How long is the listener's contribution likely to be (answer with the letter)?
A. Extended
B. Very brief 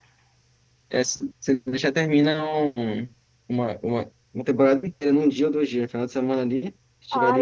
A